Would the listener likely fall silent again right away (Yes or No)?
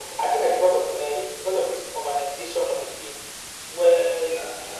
Yes